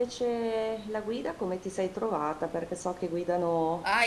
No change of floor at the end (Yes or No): No